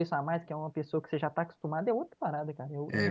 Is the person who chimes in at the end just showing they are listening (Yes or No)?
No